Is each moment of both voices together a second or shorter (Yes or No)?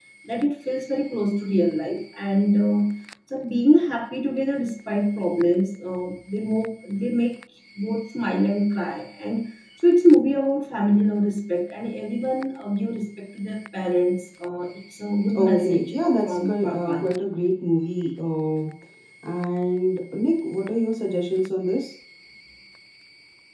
No